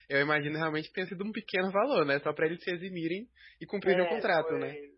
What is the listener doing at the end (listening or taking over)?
taking over